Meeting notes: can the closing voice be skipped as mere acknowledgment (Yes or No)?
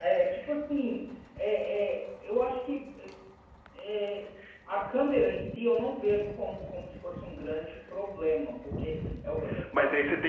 No